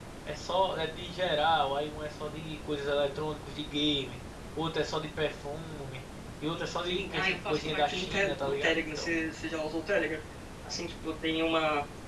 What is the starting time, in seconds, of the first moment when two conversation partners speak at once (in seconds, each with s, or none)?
6.8 s